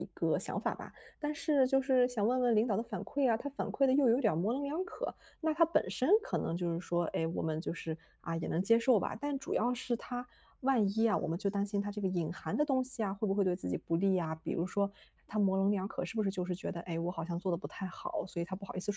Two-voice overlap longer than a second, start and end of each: none

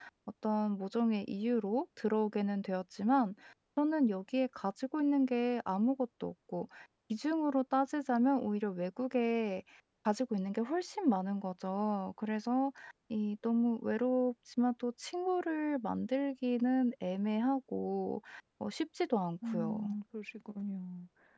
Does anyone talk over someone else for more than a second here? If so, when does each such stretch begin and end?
none

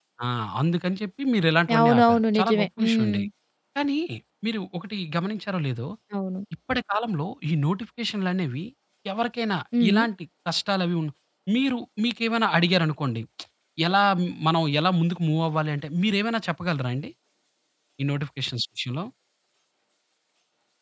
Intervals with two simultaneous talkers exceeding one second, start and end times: 1.8-3.2

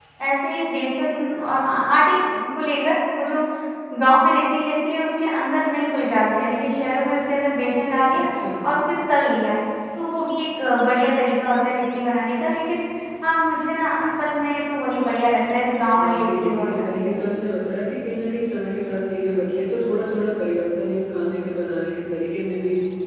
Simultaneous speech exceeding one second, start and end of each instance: 16.0-17.2

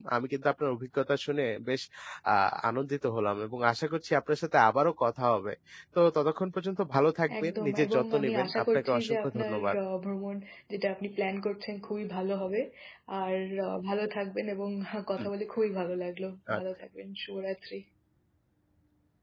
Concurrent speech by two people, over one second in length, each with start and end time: 7.4-9.8

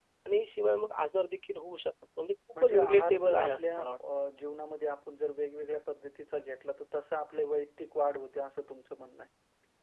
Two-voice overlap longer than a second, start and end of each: 2.6-3.9

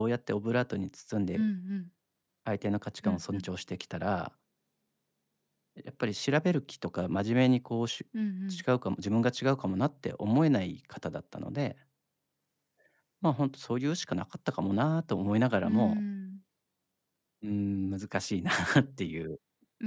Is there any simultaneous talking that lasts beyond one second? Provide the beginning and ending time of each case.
none

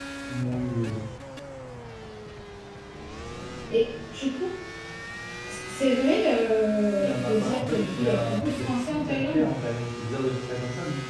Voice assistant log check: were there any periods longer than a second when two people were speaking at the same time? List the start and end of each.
7.0-9.4

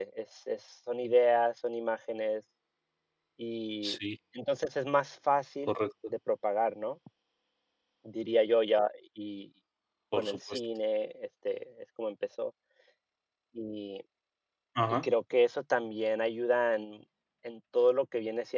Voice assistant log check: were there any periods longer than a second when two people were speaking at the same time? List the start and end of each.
none

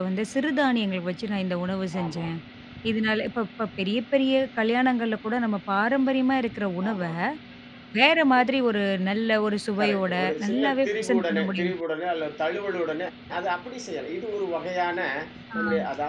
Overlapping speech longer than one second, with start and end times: 9.8-11.7

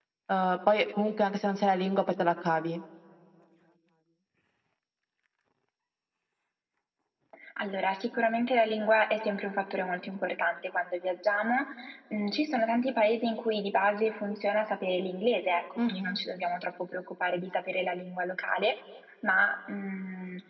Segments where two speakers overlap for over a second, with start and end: none

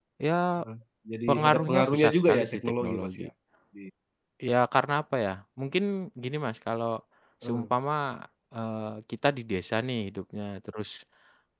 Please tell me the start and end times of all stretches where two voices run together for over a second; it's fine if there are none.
1.3-3.3

